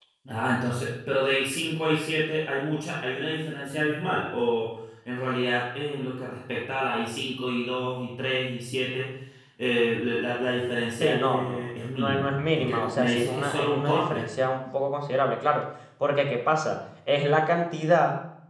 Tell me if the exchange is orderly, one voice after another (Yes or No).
No